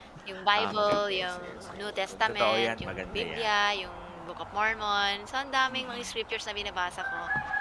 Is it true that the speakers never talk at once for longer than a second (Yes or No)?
No